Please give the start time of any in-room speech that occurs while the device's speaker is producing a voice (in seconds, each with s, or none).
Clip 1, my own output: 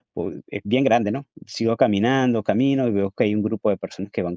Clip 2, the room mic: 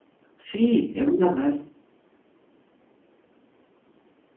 0.4 s